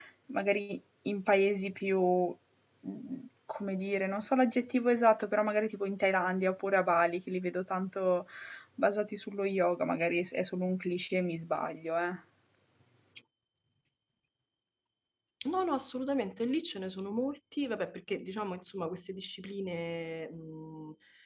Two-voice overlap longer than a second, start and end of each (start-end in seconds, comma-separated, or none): none